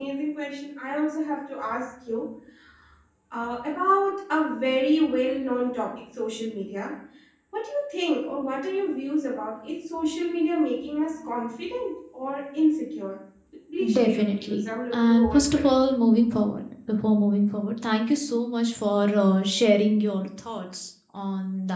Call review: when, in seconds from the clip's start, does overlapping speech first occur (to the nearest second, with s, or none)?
14 s